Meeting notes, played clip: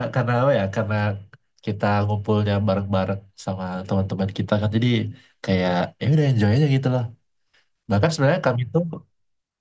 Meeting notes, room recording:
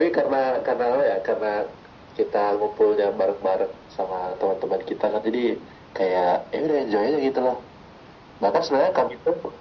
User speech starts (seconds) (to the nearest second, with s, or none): none